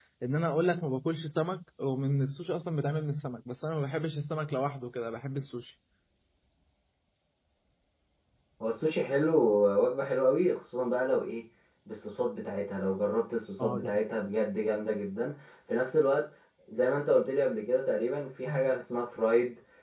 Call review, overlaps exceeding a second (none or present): none